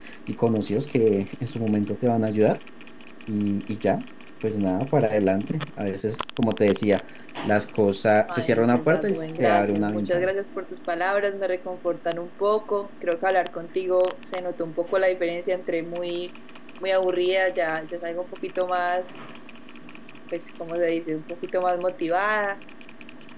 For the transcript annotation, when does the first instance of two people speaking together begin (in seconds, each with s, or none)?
8.3 s